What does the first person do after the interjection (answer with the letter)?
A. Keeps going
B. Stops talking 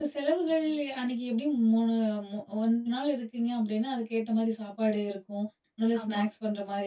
A